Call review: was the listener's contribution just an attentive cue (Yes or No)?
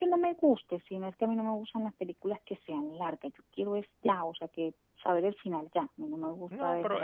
No